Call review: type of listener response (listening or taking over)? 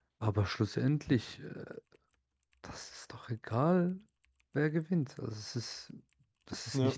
listening